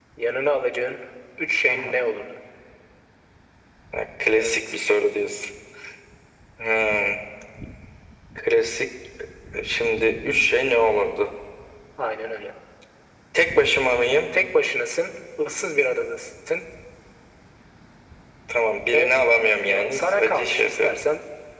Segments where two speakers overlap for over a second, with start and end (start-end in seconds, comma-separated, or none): 19.6-21.0